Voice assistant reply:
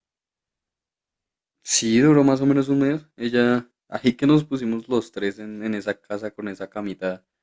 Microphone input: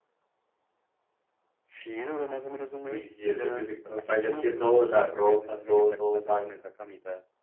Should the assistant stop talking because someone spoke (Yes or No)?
Yes